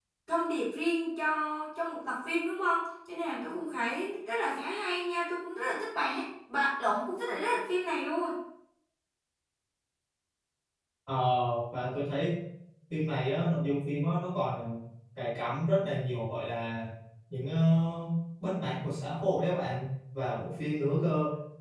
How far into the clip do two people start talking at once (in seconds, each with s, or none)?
none